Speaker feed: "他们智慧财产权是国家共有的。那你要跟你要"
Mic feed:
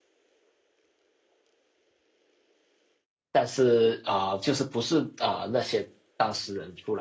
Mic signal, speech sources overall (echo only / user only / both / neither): user only